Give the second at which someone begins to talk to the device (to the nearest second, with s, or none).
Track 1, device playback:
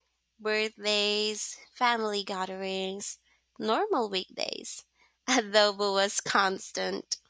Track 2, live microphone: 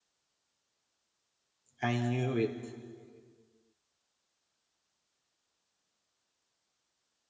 2 s